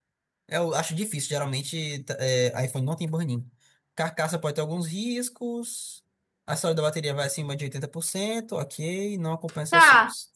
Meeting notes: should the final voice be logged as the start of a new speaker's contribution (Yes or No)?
Yes